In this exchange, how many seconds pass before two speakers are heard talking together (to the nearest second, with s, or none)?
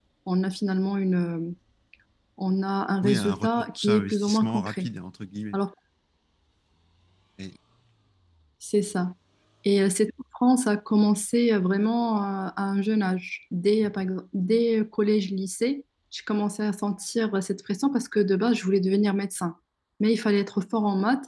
3 s